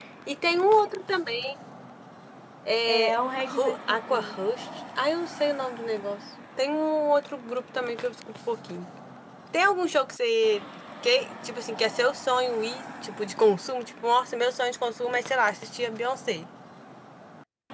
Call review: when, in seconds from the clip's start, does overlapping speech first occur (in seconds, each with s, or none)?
2.9 s